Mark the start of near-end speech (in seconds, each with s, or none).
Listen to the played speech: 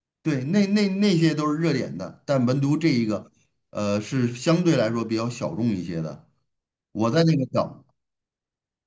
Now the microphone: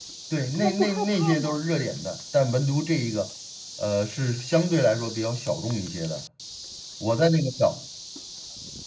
0.5 s